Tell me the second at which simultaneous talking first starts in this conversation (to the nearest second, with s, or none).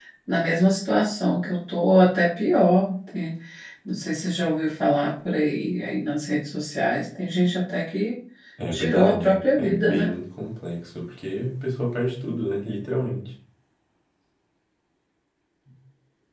9 s